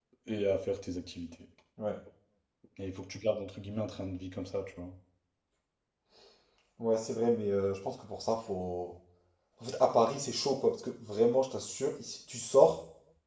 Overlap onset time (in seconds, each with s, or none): none